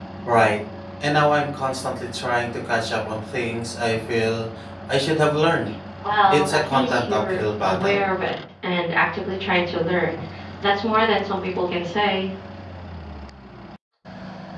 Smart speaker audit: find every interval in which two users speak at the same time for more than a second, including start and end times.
6.3-8.0

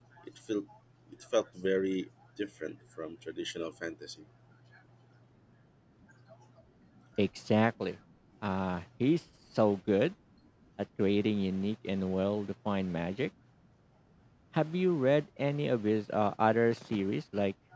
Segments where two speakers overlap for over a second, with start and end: none

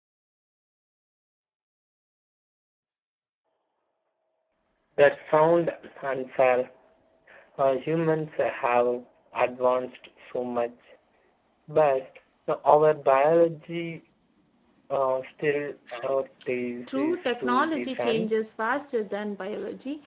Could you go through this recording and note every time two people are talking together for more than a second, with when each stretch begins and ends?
16.9-18.3

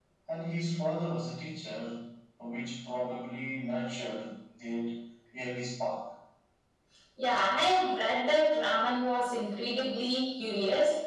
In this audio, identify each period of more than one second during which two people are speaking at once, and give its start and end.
none

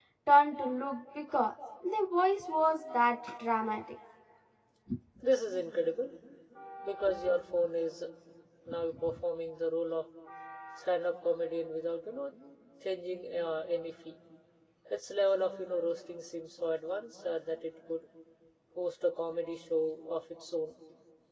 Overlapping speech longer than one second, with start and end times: none

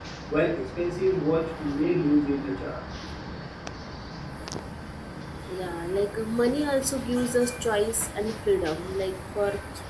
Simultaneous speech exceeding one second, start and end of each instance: none

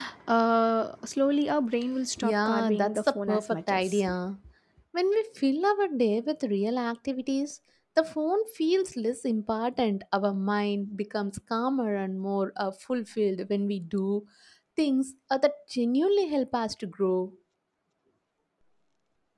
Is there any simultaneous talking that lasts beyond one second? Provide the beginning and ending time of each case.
2.2-4.0

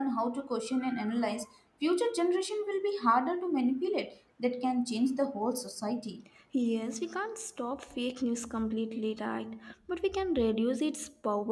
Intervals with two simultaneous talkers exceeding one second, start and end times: none

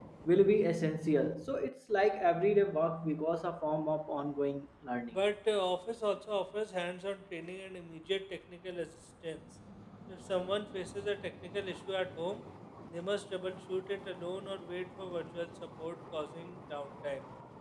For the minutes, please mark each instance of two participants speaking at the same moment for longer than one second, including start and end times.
none

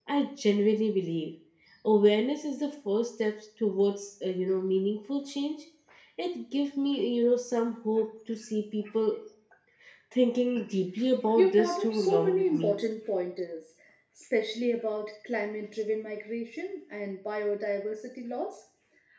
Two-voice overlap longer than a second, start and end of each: 11.4-12.8

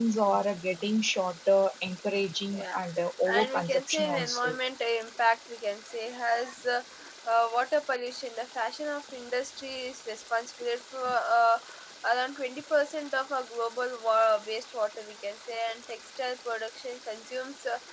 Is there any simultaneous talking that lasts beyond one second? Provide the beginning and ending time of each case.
3.3-4.6

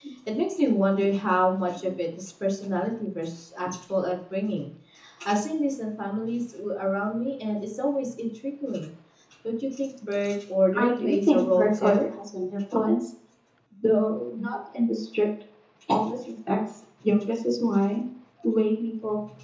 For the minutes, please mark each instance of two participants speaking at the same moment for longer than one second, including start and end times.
10.7-12.0

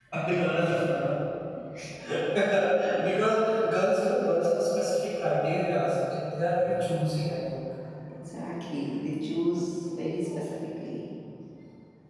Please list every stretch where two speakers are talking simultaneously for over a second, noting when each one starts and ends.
none

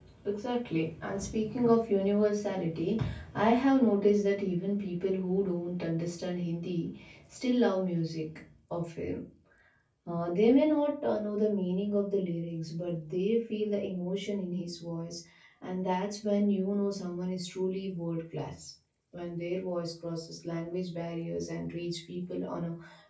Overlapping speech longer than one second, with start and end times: none

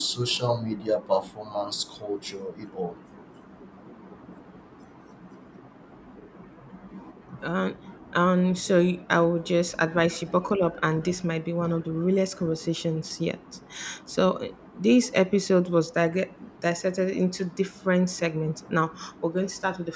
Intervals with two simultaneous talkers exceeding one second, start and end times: none

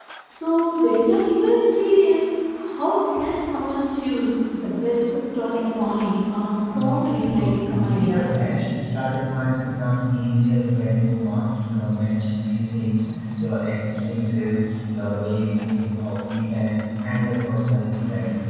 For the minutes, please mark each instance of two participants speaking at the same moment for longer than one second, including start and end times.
6.8-8.3

